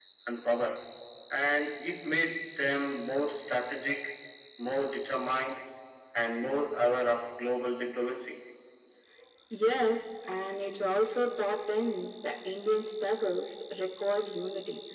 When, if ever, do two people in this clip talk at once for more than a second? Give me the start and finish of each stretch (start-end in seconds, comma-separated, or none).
none